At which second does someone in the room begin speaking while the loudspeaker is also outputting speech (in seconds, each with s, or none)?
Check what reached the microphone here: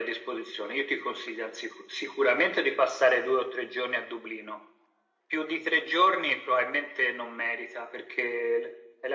none